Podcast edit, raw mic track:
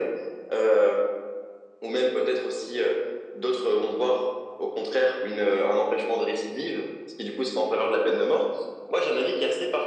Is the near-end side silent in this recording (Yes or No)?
Yes